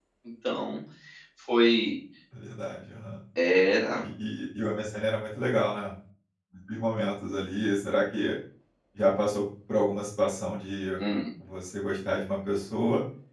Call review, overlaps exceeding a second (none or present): none